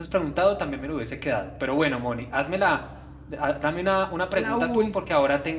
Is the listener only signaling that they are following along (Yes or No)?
Yes